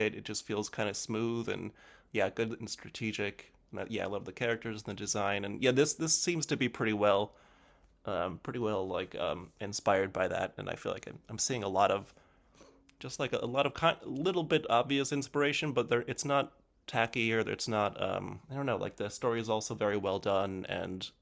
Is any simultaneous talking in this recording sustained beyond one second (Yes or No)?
No